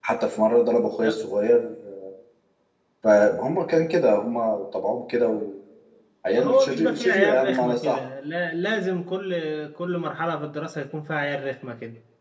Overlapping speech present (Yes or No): Yes